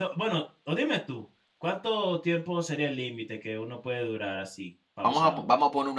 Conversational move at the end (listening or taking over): taking over